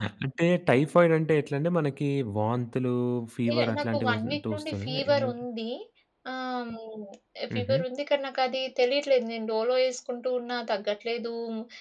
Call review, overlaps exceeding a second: present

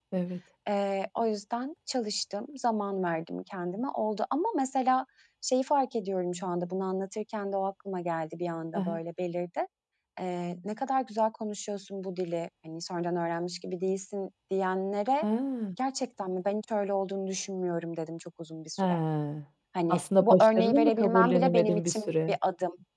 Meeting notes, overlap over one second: present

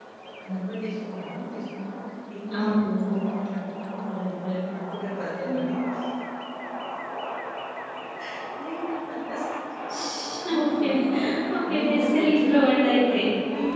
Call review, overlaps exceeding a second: present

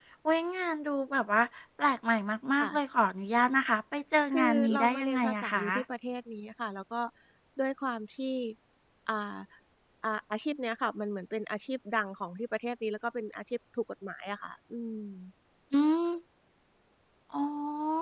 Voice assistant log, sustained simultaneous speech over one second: present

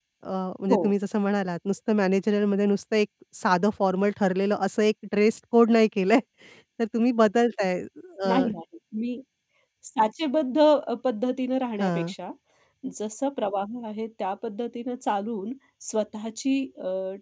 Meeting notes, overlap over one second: none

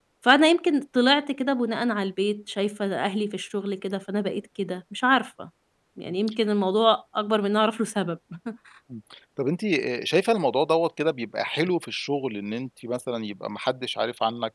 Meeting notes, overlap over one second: none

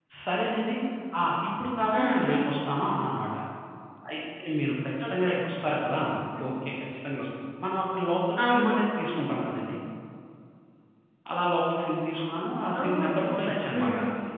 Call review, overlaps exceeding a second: present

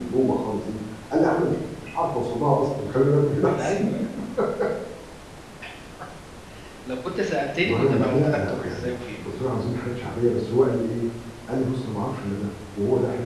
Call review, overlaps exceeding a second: present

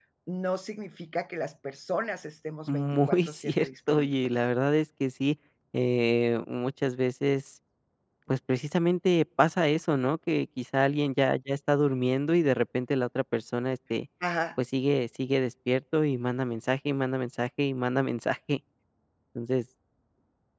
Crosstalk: present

